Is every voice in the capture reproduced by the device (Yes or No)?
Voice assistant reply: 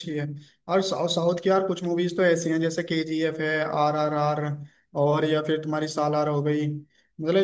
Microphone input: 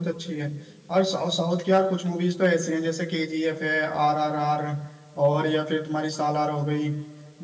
Yes